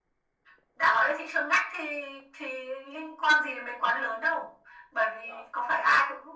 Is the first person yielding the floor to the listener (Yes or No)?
No